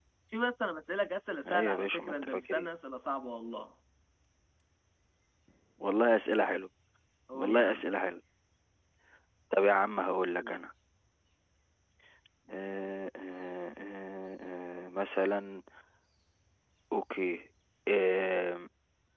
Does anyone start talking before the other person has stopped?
Yes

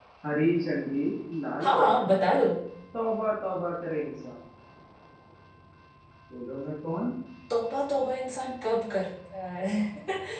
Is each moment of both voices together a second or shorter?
Yes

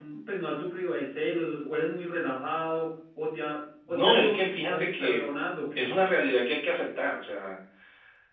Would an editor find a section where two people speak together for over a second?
Yes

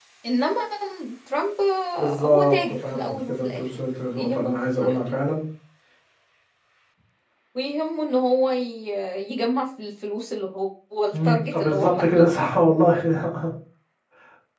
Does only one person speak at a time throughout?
No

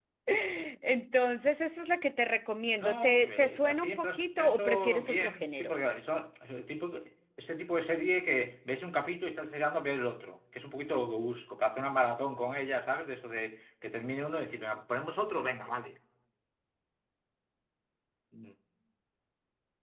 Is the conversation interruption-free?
No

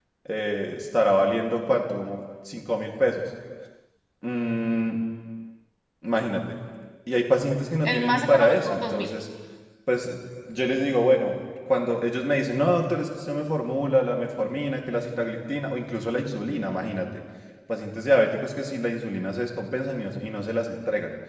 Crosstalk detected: Yes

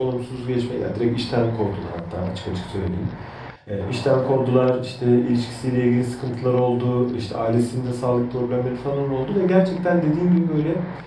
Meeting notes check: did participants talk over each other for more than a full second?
No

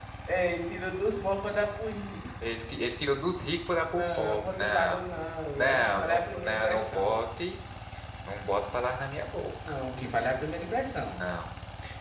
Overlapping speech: Yes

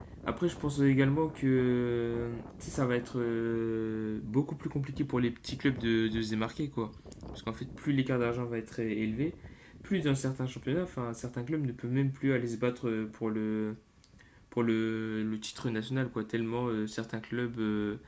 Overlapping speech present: No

